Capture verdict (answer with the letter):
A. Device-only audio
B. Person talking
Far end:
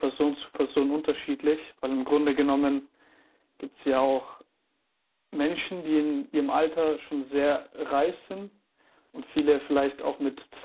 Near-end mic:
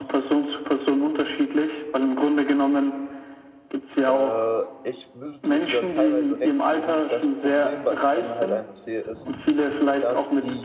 B